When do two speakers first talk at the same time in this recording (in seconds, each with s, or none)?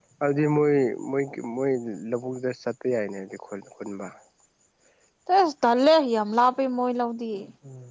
none